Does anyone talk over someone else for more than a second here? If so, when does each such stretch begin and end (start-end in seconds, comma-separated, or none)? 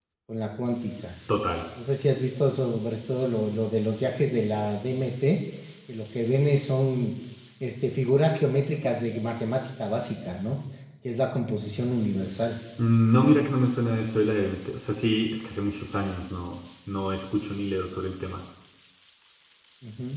none